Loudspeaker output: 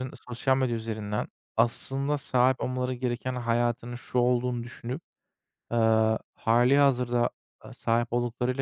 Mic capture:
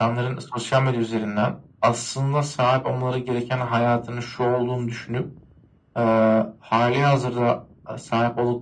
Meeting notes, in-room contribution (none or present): none